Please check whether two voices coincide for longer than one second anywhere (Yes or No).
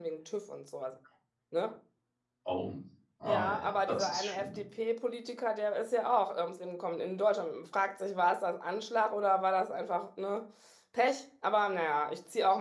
Yes